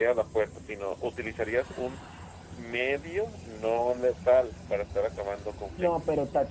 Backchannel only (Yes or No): No